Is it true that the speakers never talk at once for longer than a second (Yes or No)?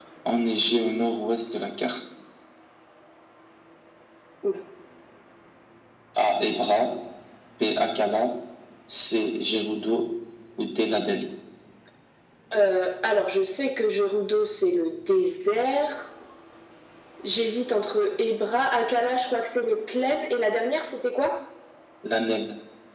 Yes